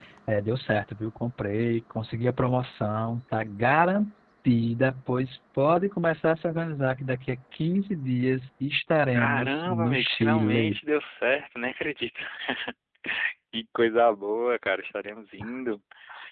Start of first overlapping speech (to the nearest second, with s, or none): 9 s